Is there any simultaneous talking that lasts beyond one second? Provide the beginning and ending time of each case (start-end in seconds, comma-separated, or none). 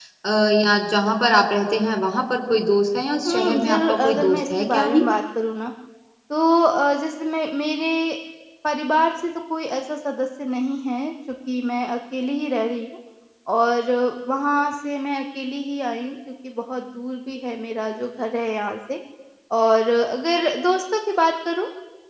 3.3-5.0